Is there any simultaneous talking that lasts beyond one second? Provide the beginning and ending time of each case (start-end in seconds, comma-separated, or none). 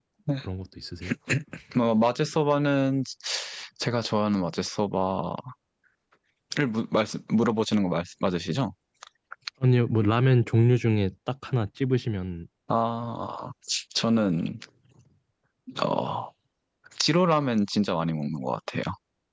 none